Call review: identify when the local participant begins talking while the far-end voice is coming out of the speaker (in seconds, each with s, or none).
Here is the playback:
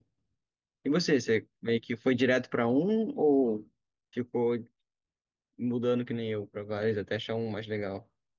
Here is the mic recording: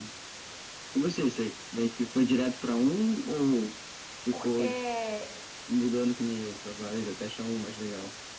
4.3 s